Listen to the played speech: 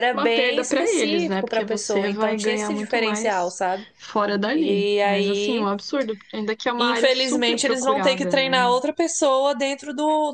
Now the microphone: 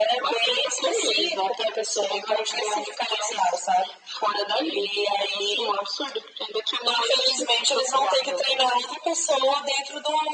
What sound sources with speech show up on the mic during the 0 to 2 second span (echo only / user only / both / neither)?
echo only